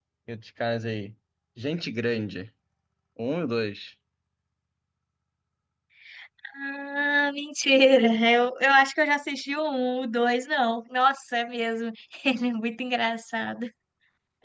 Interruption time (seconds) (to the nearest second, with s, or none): none